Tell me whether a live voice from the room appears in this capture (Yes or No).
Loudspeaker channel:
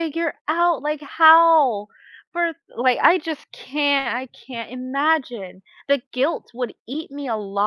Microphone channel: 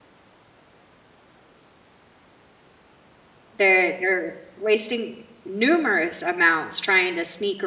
Yes